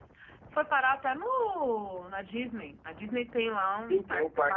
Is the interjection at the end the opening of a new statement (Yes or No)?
Yes